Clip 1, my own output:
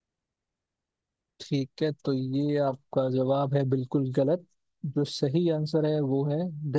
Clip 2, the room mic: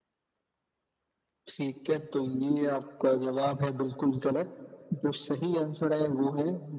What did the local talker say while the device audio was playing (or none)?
none